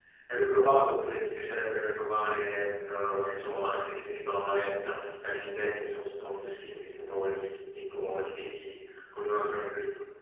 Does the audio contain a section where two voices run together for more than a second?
No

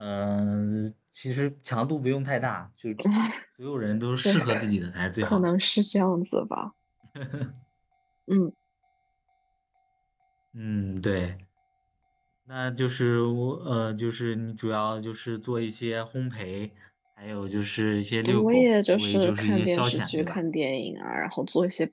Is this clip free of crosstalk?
No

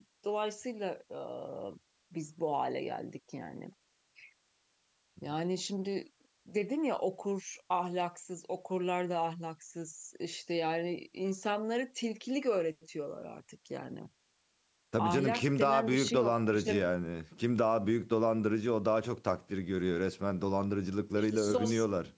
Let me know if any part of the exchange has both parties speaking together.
Yes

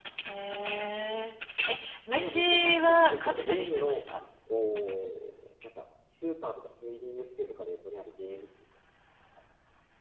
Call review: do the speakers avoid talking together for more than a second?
No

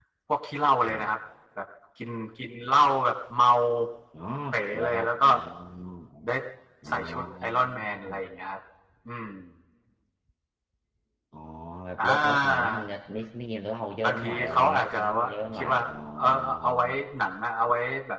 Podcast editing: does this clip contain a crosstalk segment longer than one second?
Yes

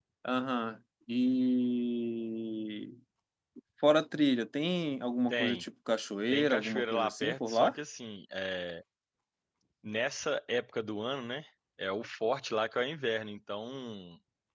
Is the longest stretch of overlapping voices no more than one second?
No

